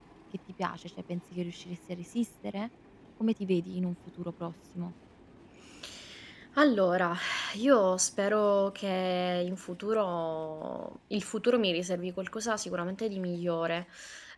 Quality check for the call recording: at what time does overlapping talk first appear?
none

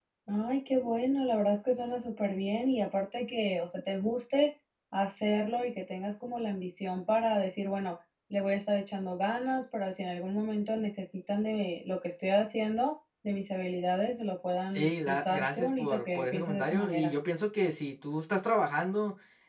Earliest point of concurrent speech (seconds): 15 s

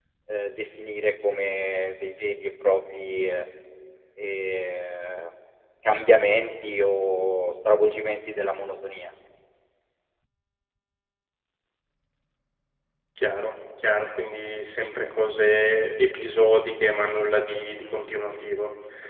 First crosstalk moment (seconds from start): none

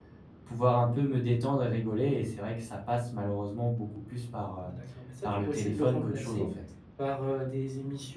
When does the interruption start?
5 s

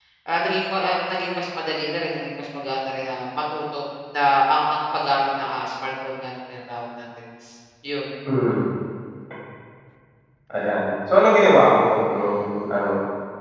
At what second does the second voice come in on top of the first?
none

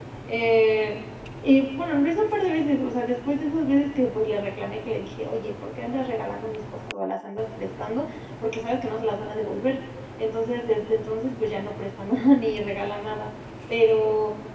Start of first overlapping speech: none

